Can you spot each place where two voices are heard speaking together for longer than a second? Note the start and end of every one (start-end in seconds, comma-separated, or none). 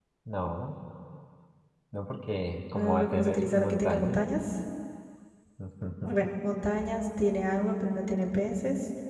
2.7-4.2